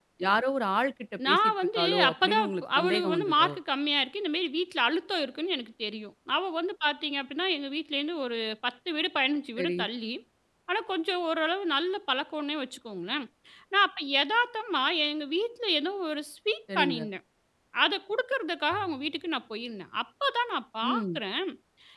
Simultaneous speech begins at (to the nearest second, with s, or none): 1 s